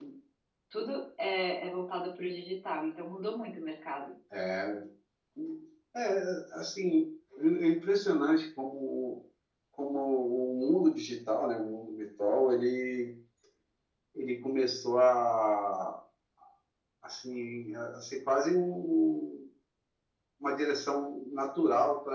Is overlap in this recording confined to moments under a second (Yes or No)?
Yes